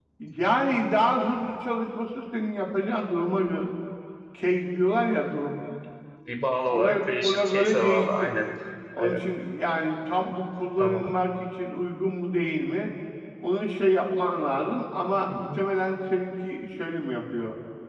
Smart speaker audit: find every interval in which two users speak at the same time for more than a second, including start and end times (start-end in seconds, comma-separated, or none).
6.7-8.3